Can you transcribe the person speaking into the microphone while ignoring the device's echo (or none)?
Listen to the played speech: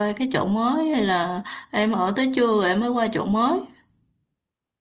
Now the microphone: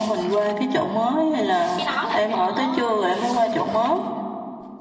cái đó là phải ở